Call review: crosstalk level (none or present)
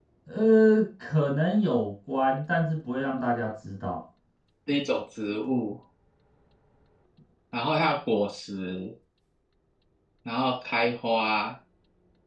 none